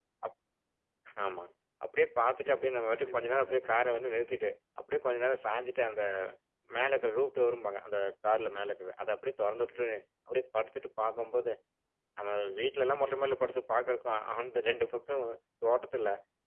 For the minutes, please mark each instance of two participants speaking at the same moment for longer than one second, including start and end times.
2.3-3.9

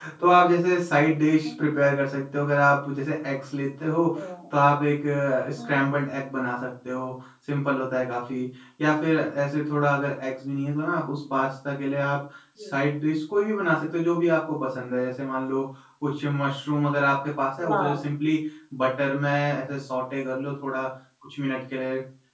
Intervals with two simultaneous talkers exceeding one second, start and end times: none

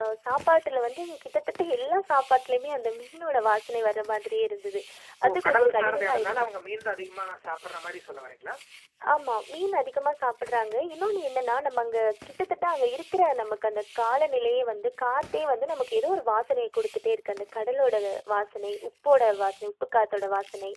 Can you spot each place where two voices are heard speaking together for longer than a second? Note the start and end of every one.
5.3-6.5

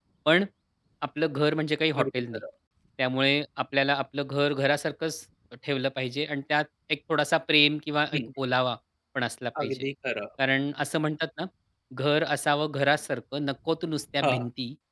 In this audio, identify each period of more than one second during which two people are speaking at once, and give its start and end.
none

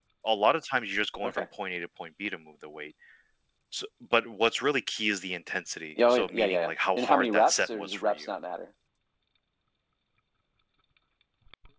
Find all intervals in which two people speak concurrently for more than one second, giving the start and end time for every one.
6.1-8.3

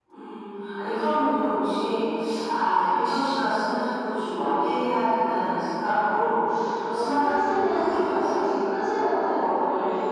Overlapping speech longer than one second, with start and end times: 6.9-8.4

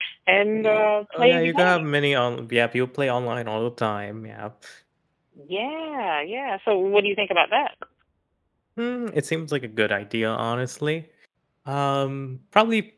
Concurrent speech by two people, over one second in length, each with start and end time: 0.5-1.8

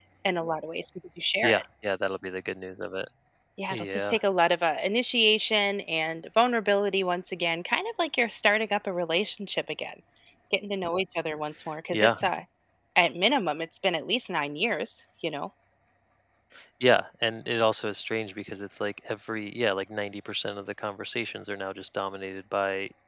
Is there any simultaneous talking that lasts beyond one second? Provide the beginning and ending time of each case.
none

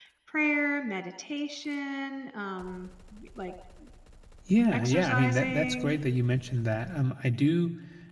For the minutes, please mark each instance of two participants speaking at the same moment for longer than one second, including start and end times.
4.7-6.0

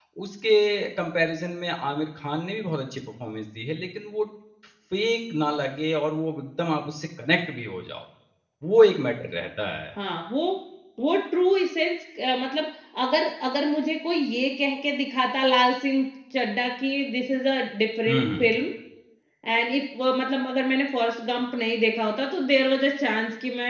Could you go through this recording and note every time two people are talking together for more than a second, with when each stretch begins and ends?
none

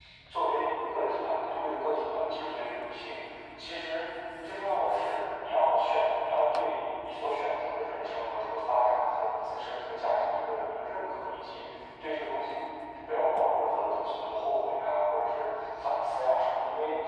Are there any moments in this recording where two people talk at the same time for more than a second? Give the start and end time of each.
none

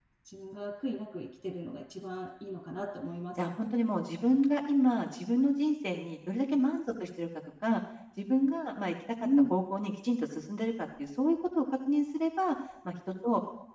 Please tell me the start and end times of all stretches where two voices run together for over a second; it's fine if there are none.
none

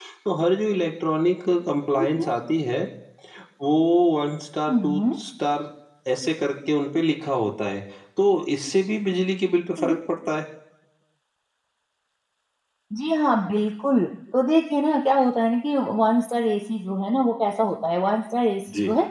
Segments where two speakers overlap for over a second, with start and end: none

